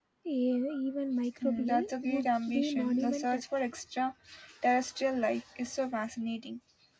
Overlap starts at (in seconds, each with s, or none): 1.4 s